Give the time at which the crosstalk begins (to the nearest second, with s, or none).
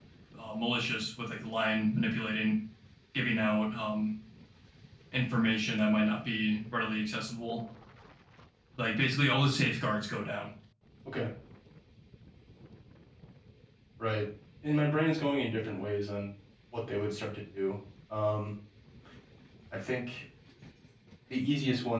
none